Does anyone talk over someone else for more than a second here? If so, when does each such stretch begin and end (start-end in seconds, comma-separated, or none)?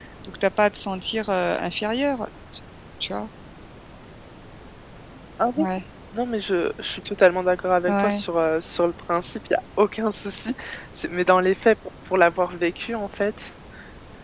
none